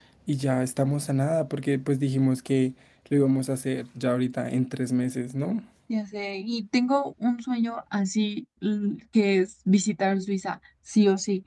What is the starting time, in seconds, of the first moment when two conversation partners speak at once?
none

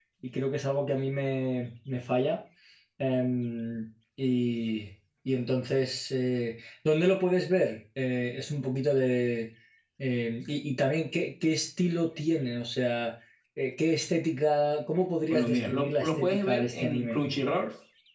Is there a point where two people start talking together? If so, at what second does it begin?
15.3 s

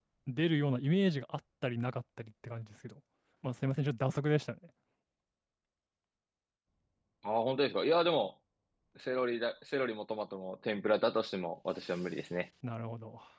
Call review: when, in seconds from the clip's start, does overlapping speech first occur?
none

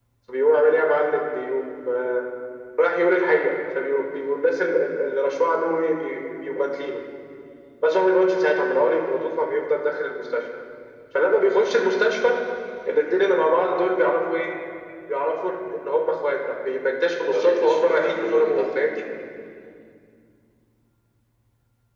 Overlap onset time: 17.2 s

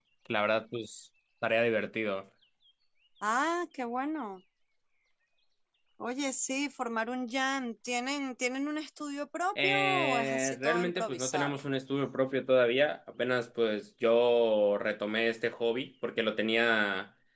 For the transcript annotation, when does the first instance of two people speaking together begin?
9.6 s

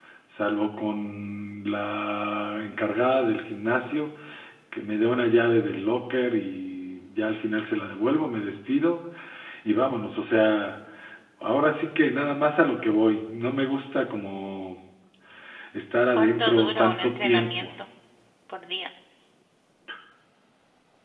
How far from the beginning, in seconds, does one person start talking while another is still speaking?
16.2 s

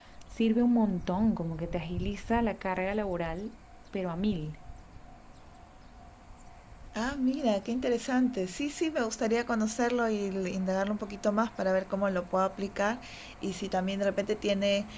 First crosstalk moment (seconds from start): none

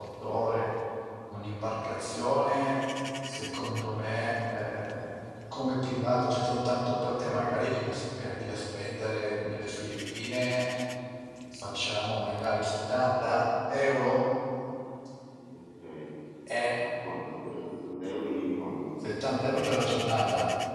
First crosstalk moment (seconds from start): none

